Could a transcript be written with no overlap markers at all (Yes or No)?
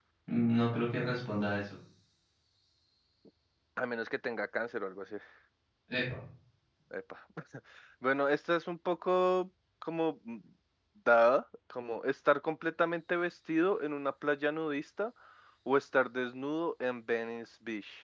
Yes